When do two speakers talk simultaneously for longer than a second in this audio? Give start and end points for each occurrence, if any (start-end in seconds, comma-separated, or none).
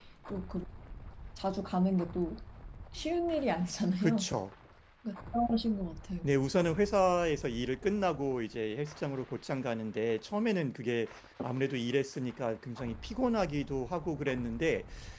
none